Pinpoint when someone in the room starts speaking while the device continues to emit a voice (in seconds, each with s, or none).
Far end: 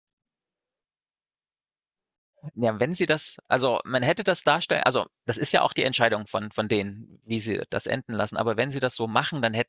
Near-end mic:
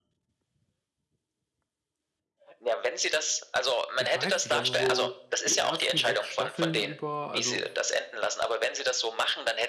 3.9 s